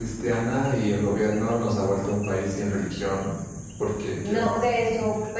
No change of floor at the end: No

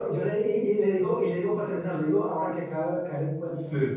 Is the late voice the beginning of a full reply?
No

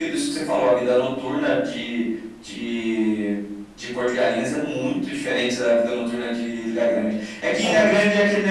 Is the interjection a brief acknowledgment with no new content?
Yes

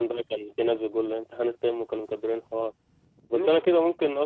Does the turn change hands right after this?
No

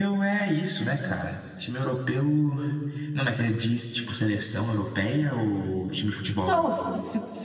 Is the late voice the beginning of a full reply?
Yes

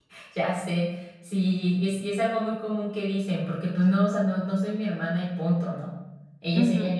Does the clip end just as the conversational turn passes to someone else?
Yes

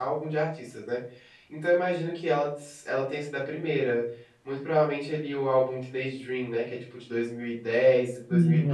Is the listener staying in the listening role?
Yes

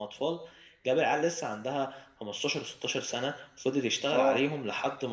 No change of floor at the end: Yes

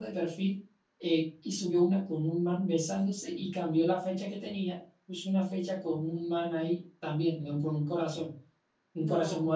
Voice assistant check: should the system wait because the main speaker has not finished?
Yes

